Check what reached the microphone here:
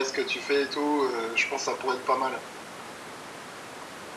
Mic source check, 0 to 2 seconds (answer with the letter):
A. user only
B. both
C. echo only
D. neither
C